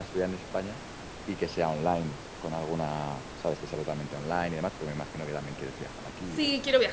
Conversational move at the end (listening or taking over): taking over